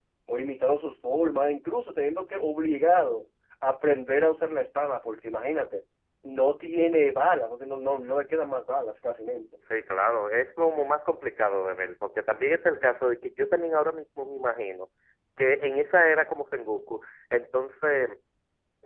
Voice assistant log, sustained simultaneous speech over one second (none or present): none